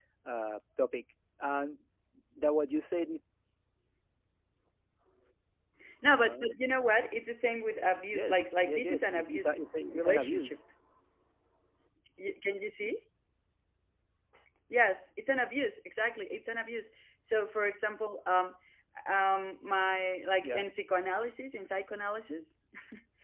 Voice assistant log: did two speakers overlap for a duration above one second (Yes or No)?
Yes